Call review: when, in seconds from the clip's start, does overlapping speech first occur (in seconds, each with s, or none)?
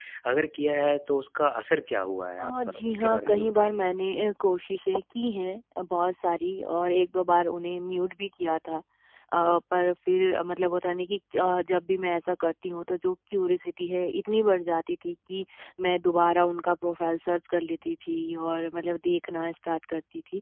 2.4 s